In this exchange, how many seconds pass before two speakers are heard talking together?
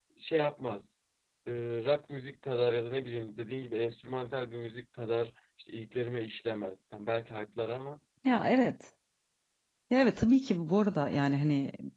none

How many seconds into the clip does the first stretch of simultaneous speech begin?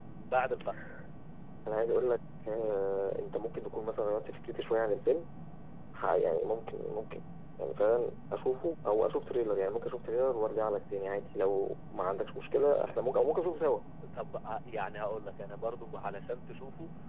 none

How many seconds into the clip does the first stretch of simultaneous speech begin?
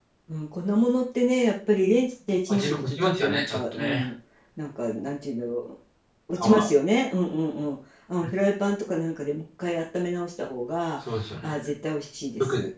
2 s

